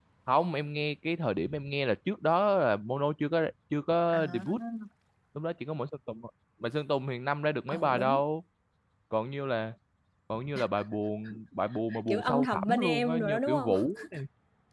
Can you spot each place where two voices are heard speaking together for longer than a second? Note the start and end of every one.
12.1-13.7

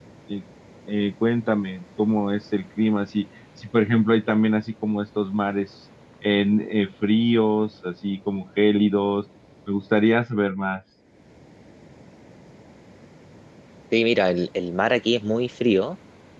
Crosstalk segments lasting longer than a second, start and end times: none

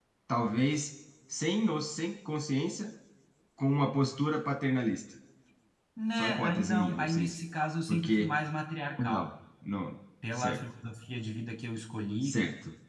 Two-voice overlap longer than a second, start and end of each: 6.2-7.4

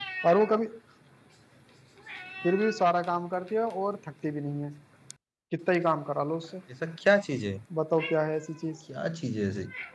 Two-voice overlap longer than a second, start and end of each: none

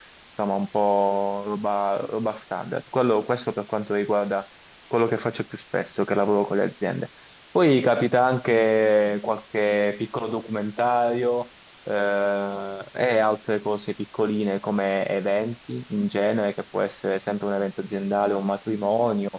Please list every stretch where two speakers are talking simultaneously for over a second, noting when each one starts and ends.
none

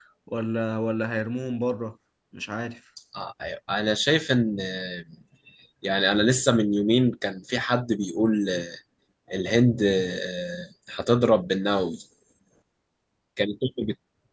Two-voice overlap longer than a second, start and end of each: none

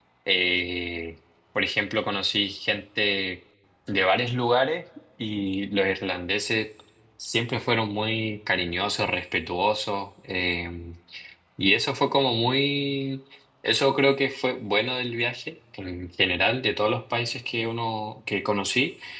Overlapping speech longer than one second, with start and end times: none

